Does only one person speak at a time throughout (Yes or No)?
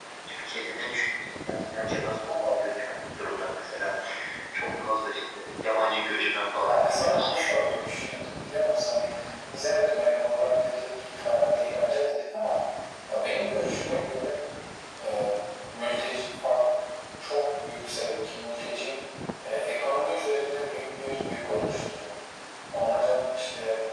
No